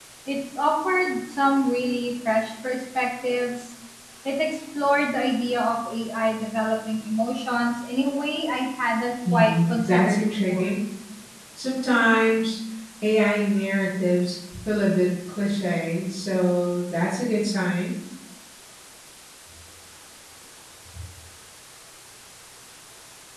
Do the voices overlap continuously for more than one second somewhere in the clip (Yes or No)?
Yes